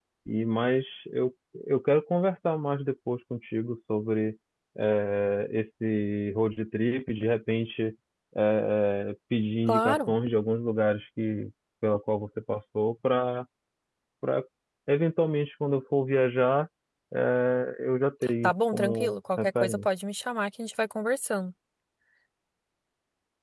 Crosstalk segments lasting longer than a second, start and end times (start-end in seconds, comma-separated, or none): 18.4-19.9